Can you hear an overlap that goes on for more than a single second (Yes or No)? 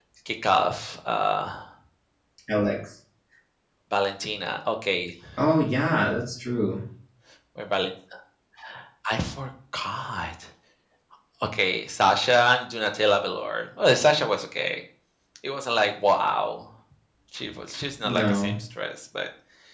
No